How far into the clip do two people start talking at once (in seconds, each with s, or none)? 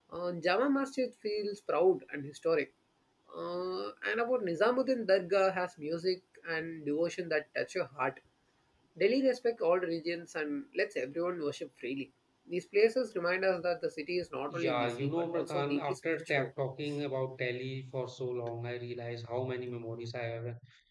14.5 s